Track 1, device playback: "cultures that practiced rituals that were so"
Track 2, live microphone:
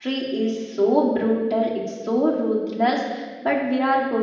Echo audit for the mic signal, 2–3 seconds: user only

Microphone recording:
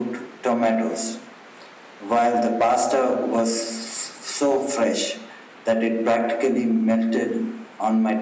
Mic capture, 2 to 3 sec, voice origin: echo only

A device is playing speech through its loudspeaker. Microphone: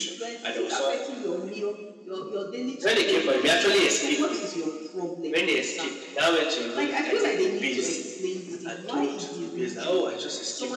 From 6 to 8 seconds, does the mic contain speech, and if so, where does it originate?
echo only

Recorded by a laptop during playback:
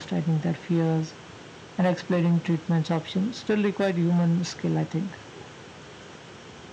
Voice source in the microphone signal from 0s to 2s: echo only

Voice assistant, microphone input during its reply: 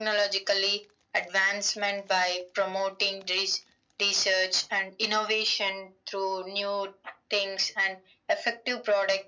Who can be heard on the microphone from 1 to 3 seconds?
echo only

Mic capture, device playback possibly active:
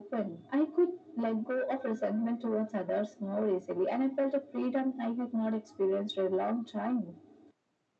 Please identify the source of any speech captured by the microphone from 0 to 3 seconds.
echo only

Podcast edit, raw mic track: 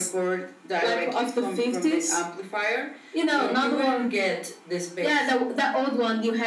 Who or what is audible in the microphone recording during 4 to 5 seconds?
echo only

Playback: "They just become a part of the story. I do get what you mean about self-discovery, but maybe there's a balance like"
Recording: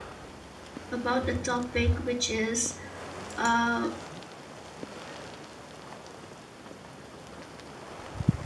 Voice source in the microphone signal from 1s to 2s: user only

